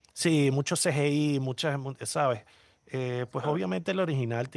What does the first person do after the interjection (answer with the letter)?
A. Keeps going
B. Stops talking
A